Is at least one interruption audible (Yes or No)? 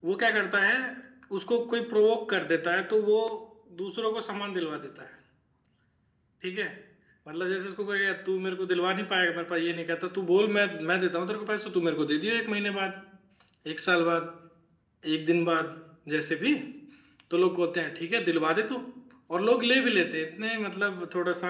No